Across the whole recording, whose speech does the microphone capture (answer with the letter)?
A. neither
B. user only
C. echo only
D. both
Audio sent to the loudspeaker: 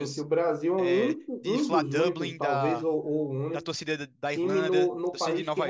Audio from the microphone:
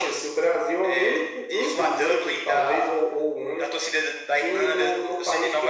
C